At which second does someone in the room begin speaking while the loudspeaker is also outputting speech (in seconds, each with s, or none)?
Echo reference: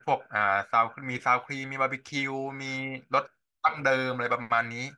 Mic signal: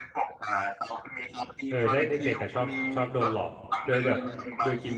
1.7 s